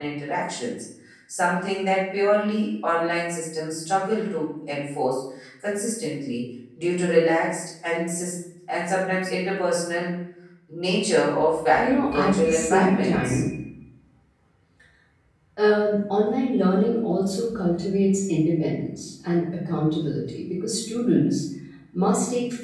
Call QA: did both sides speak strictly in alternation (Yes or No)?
No